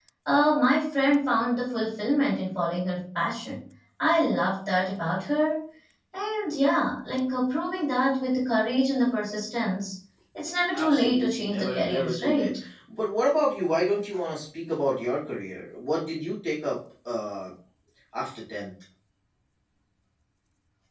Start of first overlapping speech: 10.7 s

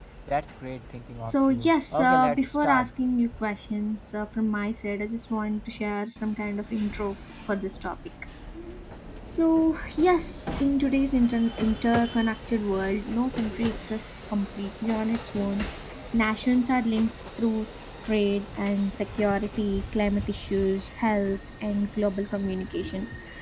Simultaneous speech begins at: 1.2 s

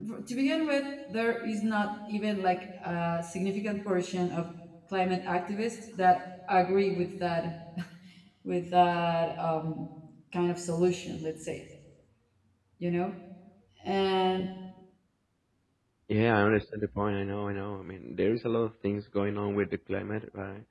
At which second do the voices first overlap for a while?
none

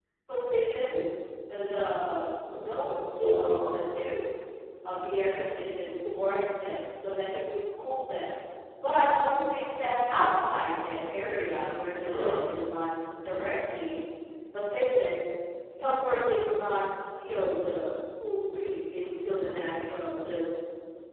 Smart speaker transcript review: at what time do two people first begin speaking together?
2.5 s

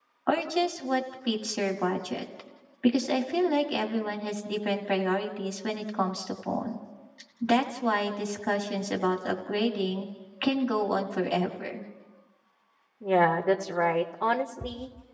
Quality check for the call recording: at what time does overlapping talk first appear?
none

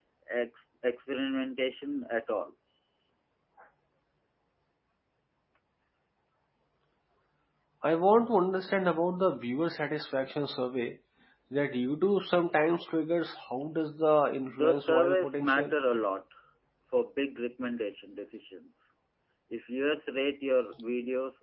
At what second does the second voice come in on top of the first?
14.5 s

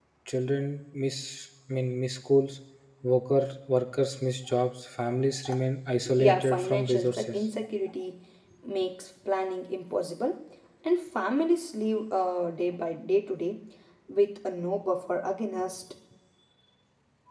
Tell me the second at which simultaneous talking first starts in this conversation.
6.2 s

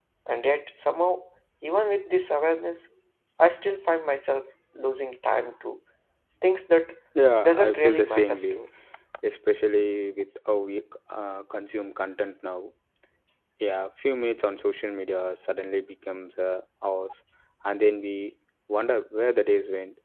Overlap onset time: 7.4 s

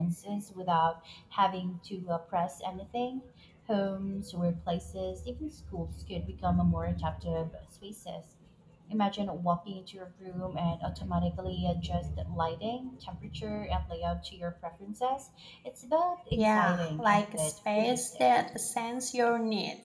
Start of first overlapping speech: 16.3 s

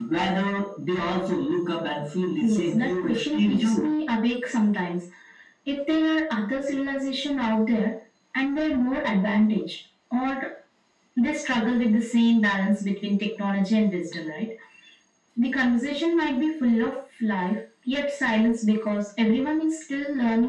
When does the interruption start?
2.4 s

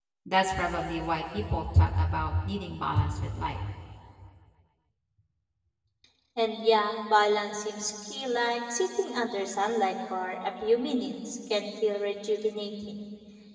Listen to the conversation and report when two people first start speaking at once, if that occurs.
none

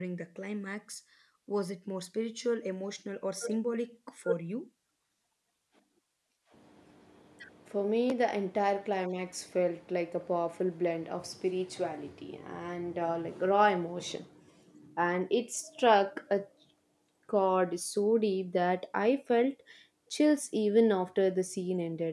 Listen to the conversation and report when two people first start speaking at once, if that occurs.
none

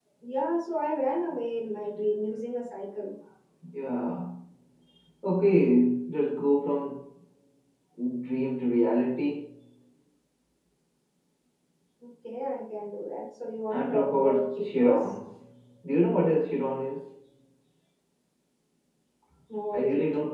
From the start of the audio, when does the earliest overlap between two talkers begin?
13.7 s

